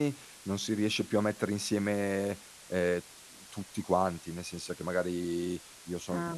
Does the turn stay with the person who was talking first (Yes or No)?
Yes